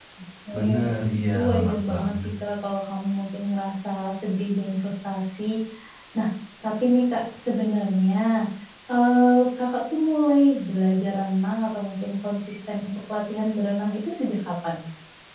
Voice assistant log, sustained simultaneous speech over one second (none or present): present